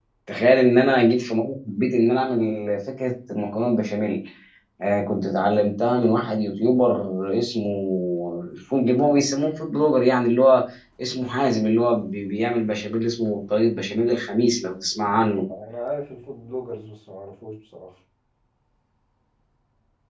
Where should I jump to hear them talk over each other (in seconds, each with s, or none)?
none